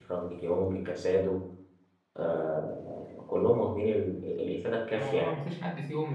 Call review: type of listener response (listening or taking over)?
taking over